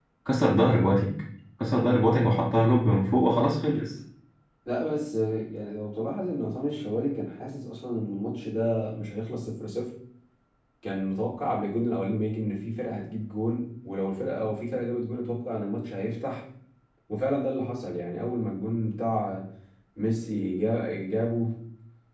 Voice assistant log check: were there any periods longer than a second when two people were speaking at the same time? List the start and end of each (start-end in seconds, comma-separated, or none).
none